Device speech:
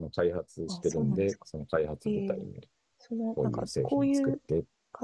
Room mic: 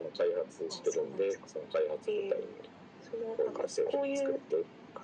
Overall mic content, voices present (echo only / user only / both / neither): echo only